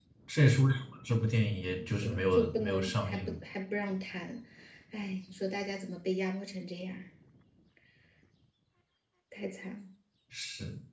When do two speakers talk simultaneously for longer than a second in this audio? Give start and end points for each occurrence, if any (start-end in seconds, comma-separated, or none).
2.0-3.4